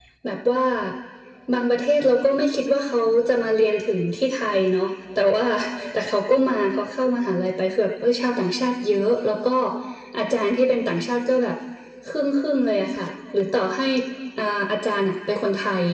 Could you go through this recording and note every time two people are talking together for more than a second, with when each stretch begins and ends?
none

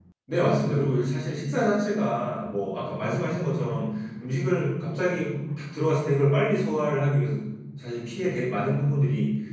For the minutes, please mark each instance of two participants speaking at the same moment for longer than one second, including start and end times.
none

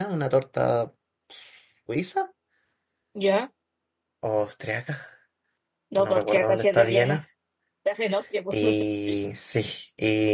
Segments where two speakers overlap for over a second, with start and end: 6.0-7.2

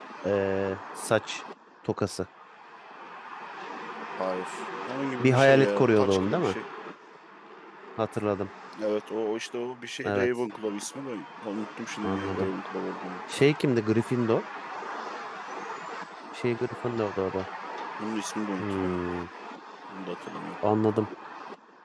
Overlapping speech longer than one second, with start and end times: 5.2-6.5

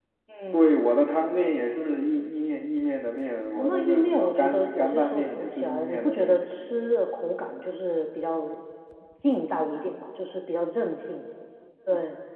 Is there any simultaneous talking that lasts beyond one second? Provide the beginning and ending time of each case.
3.5-6.4

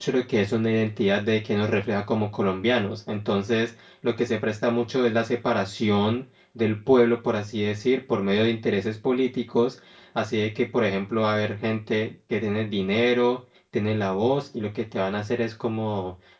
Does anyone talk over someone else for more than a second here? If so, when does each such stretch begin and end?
none

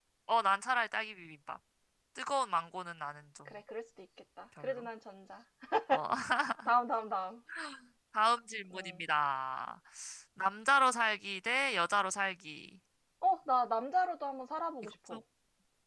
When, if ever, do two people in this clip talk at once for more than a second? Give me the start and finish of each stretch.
none

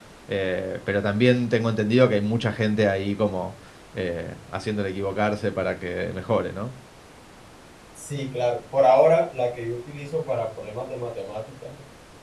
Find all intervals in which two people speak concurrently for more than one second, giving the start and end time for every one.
none

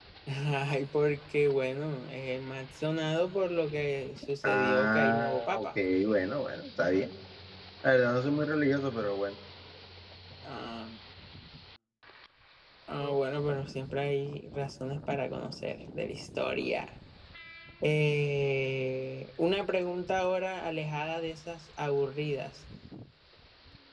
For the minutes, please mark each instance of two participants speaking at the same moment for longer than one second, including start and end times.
4.4-5.7

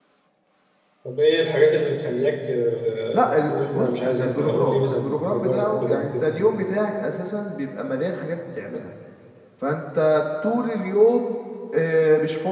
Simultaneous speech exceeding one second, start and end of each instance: 3.1-6.5

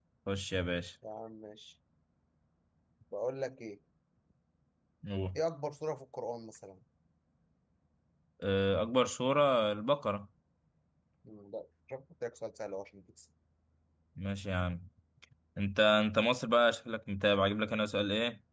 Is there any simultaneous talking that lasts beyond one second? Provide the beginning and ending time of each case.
none

